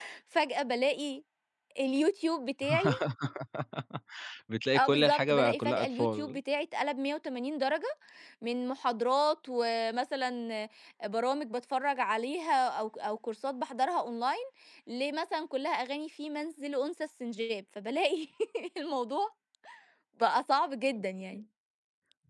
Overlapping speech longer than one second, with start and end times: 4.8-6.4

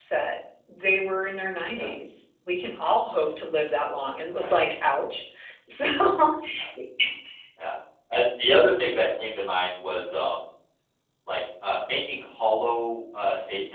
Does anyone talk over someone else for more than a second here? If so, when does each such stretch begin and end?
none

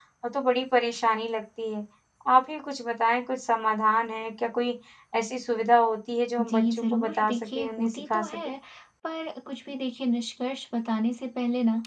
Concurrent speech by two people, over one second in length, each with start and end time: 6.4-8.3

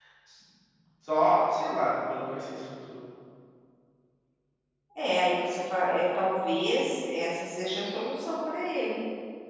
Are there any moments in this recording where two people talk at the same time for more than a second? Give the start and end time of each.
none

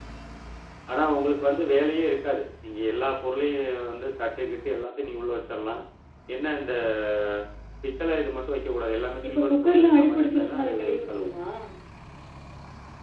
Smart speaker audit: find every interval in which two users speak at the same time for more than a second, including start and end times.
9.3-11.3

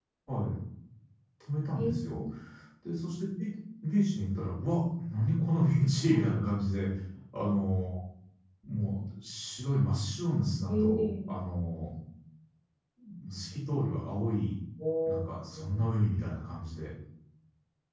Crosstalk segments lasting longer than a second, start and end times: none

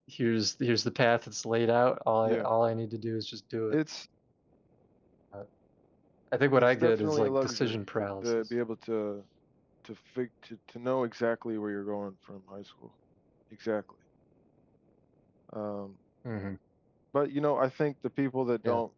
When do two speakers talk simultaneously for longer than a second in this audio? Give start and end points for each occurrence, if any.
6.6-7.8

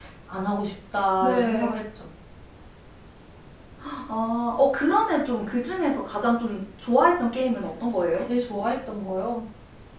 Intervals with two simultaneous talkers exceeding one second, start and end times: none

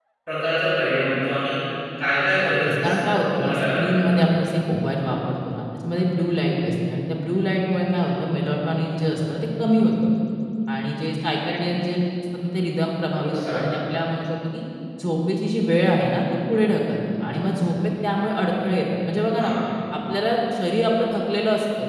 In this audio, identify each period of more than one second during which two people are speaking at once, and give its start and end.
2.4-4.1

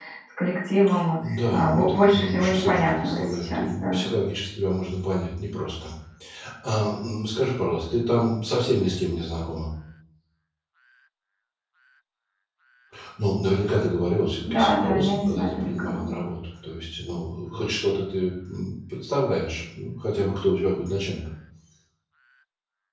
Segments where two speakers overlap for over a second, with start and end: 1.3-4.0, 14.5-16.1

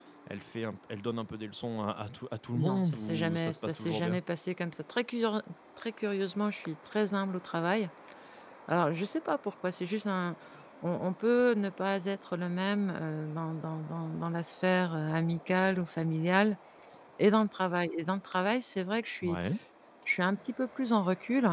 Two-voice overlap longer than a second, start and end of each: 2.5-4.2

